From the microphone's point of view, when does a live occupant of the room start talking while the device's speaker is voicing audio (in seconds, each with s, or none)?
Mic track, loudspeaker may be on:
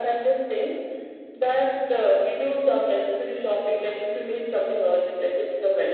none